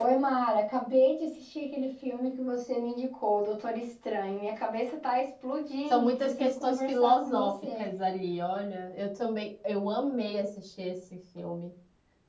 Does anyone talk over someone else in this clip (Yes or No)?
Yes